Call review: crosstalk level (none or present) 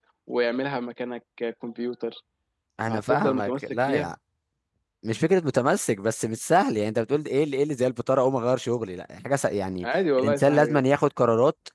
present